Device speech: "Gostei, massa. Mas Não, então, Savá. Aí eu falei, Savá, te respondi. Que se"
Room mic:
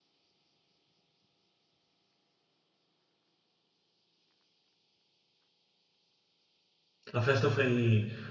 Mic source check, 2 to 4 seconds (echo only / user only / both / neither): neither